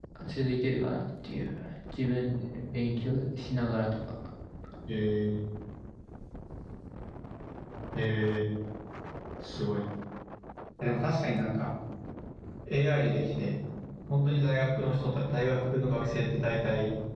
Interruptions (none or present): none